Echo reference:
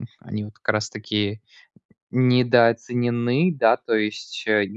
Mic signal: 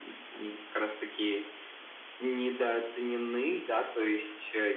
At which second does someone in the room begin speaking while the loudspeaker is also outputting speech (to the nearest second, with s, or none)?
none